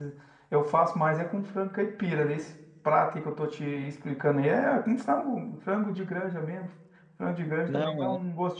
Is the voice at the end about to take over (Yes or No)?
No